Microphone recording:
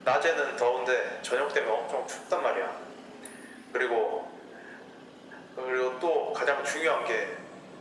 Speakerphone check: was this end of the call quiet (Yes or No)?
Yes